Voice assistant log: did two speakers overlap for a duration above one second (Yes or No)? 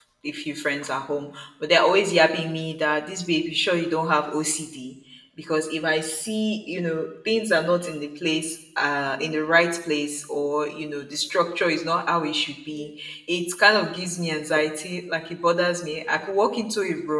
No